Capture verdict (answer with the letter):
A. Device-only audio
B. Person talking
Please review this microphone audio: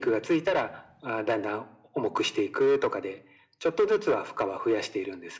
A